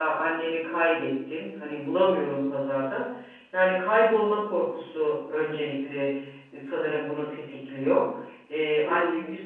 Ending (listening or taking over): listening